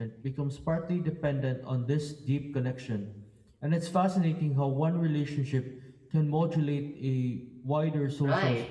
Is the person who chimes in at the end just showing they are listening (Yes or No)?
No